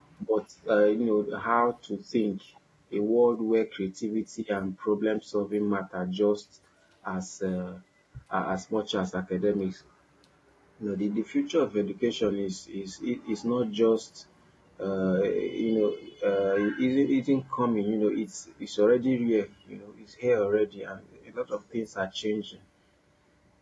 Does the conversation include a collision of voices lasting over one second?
No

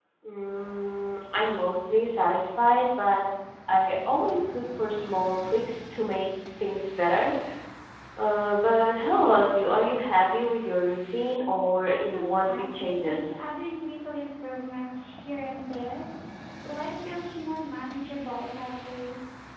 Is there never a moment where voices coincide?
No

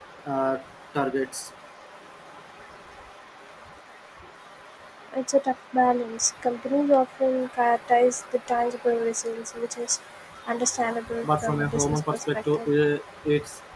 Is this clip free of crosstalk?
No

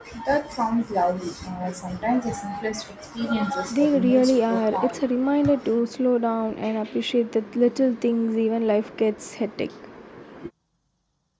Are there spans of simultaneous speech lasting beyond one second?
Yes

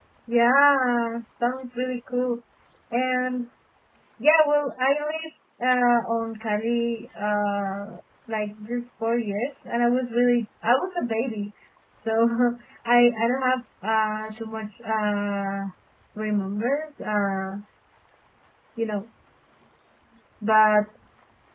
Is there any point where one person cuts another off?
No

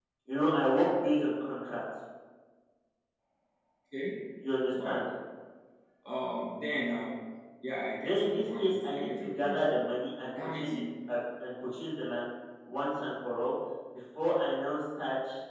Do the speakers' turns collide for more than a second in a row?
Yes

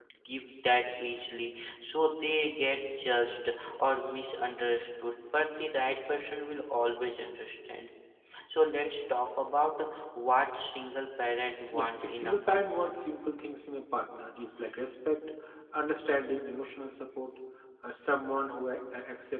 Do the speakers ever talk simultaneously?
Yes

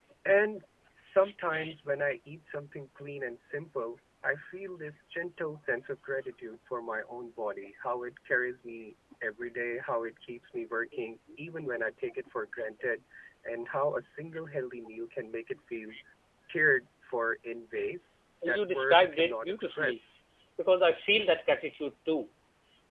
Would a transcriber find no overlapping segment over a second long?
No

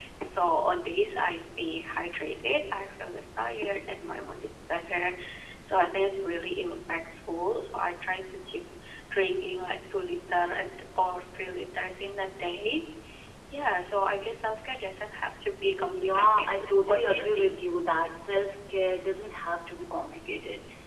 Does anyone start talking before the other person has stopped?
Yes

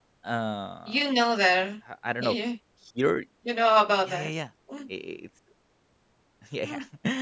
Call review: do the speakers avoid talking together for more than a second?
Yes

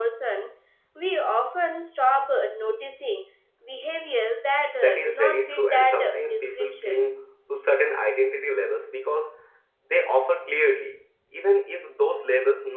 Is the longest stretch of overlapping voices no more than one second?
No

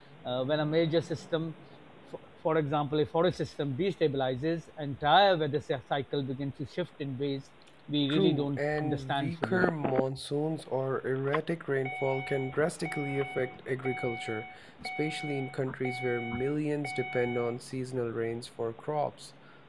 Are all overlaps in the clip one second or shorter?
No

